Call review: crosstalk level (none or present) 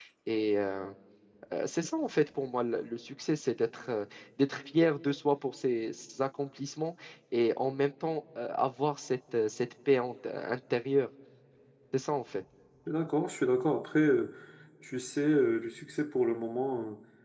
none